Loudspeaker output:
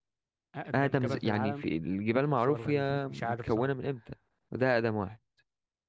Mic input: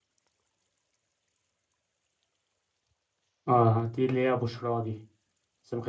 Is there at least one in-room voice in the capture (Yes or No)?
Yes